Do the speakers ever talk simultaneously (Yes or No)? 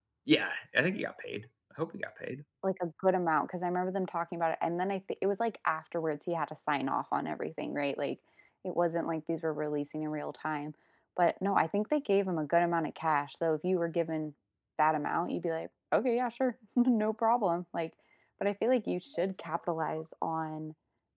No